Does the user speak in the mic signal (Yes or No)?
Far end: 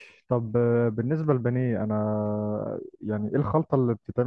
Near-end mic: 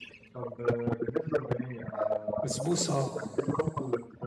Yes